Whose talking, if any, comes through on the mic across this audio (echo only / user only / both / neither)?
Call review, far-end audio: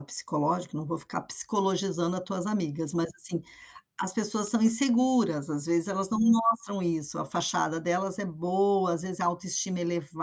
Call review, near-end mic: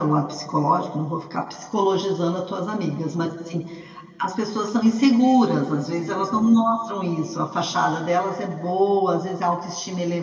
echo only